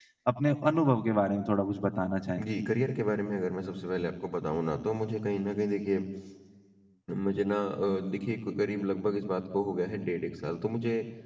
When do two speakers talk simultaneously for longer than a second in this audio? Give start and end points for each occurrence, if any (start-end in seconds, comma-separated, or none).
none